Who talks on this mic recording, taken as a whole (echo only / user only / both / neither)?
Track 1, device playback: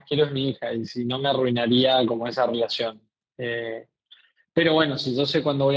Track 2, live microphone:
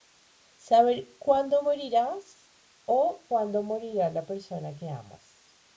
user only